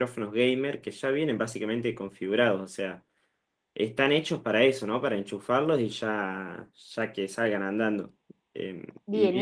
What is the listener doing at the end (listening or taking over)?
taking over